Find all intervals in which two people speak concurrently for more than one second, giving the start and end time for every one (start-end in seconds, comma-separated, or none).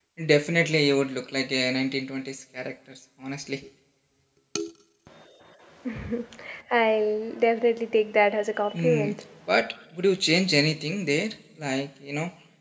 none